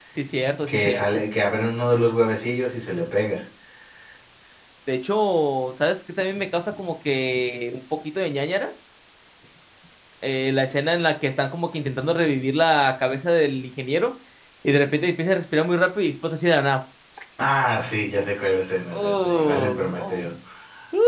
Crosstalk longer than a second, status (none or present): present